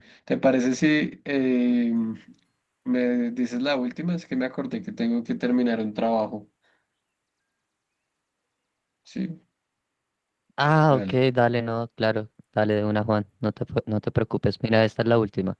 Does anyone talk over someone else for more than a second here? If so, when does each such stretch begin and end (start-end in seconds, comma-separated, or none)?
none